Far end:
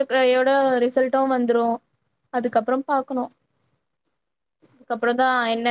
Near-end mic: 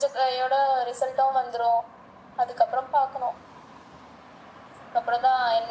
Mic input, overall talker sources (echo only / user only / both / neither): echo only